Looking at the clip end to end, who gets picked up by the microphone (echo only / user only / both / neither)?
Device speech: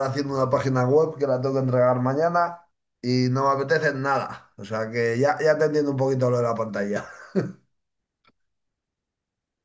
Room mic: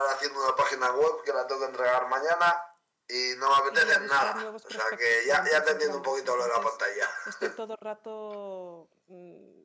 both